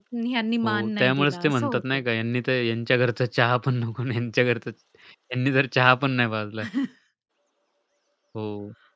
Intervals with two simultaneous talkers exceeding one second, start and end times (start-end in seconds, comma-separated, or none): 0.6-2.0